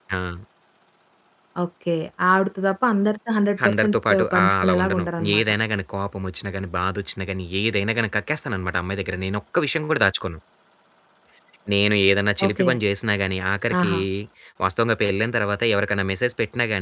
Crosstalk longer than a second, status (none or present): present